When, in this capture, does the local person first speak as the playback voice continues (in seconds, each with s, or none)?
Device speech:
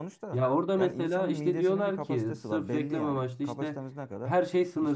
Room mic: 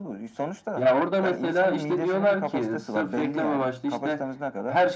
none